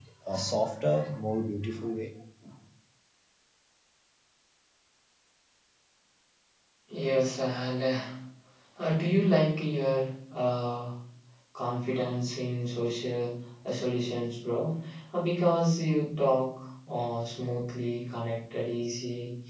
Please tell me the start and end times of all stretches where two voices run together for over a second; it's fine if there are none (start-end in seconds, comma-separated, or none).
none